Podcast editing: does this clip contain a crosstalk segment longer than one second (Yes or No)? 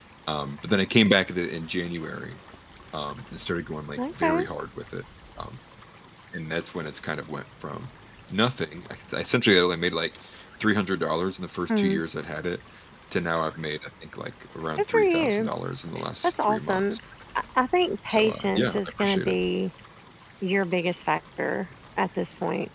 Yes